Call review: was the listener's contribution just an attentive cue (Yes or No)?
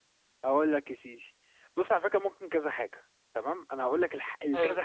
Yes